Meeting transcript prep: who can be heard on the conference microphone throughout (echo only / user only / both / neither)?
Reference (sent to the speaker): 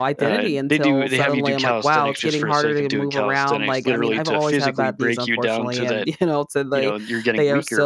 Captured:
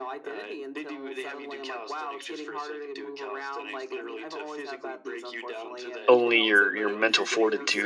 both